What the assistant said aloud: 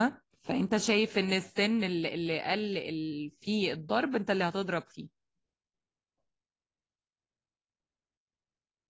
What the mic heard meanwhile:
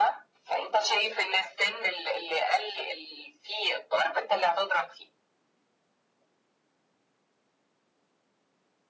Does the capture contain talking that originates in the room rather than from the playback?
No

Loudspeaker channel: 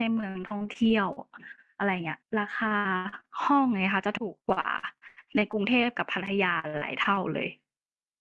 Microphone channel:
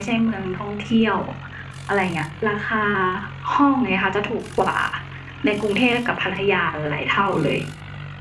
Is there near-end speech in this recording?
No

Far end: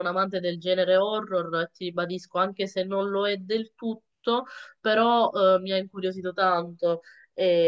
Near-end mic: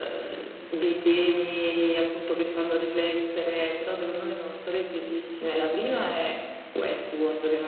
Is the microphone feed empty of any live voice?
No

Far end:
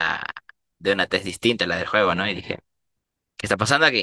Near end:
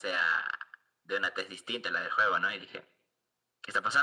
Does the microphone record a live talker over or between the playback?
No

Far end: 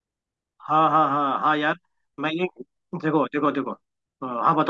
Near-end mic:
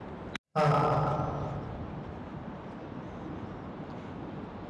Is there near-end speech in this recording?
Yes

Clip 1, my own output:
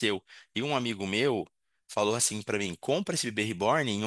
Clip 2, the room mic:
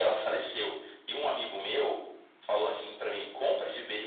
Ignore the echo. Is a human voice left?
No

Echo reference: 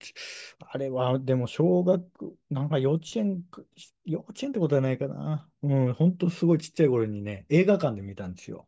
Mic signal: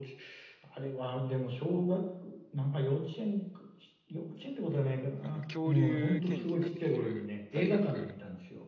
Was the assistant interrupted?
Yes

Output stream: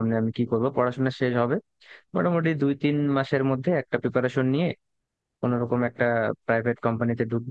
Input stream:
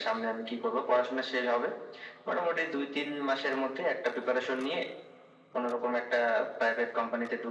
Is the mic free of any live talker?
Yes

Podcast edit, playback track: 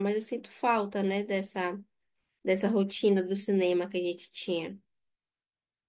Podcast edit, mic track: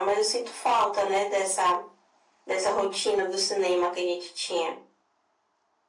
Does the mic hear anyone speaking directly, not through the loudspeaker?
No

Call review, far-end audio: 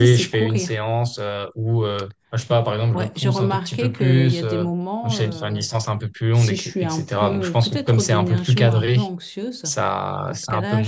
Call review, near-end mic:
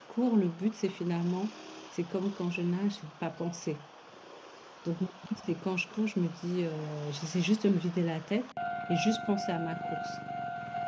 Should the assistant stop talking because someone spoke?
Yes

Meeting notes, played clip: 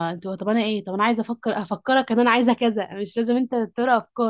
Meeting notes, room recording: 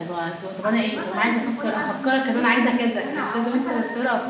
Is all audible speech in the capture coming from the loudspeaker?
No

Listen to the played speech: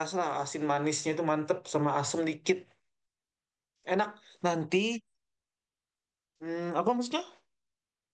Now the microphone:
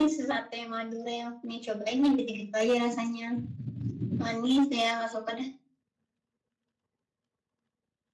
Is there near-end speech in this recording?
Yes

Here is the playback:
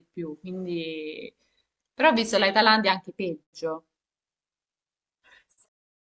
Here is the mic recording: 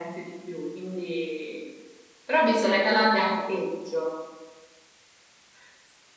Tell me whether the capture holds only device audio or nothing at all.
Yes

